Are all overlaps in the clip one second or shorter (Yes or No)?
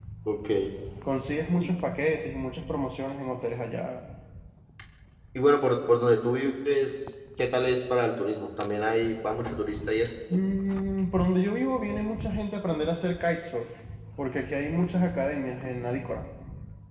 Yes